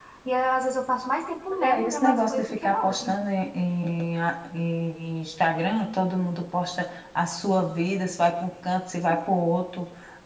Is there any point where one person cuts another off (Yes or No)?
Yes